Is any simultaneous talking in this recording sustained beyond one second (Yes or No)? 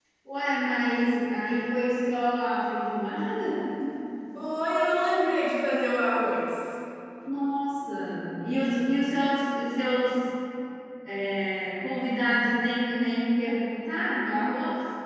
No